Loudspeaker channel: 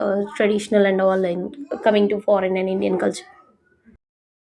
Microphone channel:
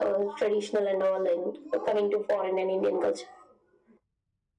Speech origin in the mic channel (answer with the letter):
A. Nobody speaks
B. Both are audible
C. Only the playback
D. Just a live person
C